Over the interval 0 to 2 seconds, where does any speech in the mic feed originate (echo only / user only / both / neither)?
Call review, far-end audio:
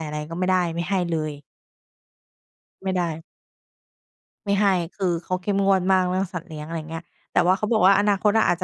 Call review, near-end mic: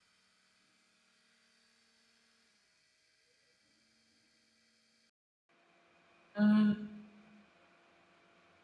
neither